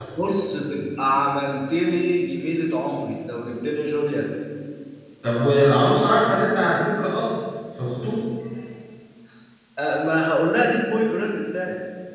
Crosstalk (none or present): none